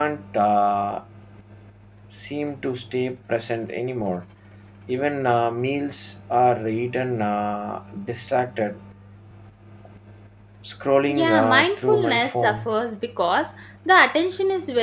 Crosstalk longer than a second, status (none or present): present